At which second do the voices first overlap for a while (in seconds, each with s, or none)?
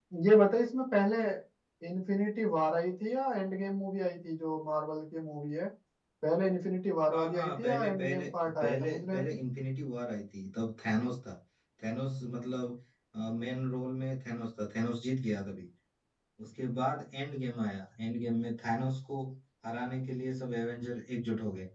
7.1 s